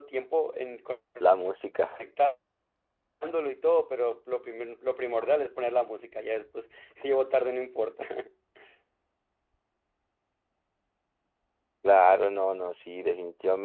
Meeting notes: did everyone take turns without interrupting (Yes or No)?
Yes